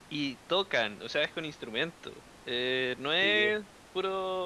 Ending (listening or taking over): listening